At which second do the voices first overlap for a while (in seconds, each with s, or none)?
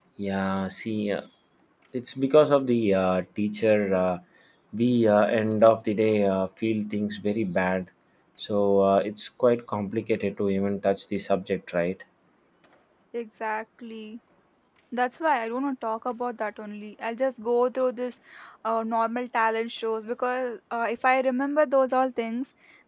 none